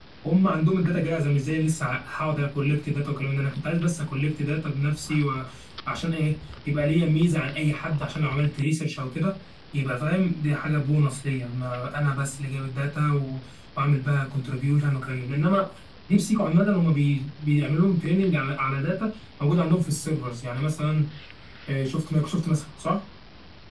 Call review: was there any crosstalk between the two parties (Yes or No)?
No